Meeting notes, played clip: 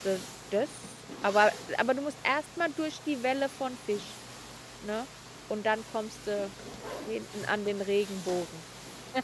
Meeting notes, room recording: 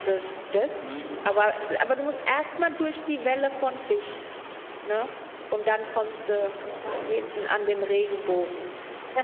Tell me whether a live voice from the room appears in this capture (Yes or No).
Yes